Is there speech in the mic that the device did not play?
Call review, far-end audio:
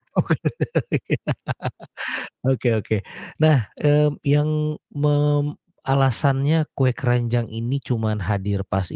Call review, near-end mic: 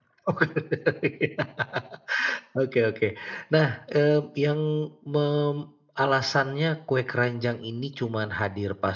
No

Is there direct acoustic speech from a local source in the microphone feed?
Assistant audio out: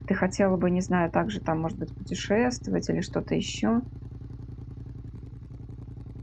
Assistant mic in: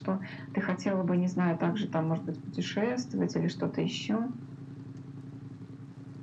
No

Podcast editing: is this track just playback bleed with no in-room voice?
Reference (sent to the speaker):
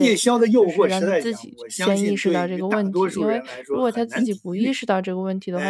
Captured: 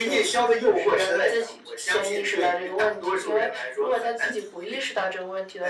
Yes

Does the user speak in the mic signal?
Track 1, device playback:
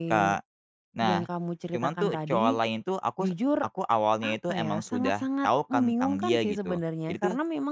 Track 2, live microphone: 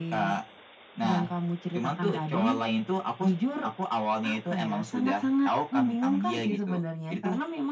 No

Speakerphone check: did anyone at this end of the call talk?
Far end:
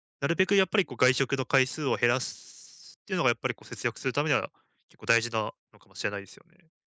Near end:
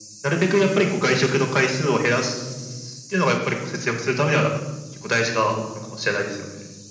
No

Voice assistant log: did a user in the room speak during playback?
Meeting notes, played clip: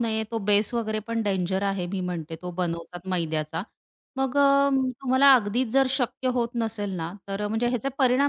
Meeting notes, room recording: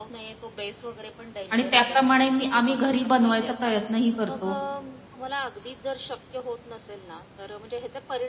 Yes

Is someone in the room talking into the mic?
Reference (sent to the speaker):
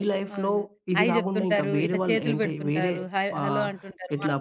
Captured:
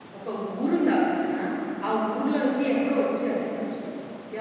Yes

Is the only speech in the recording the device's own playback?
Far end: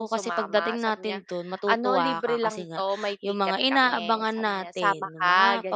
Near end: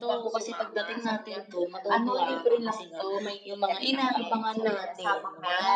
Yes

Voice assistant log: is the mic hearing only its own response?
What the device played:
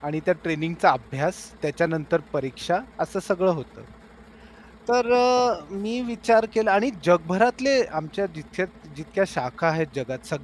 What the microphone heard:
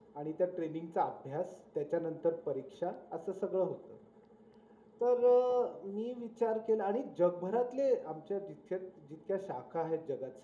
Yes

